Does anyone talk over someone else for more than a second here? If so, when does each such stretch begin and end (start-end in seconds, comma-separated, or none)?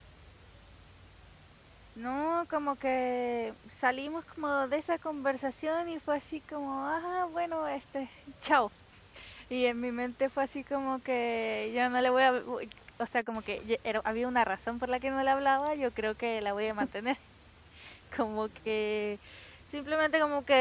none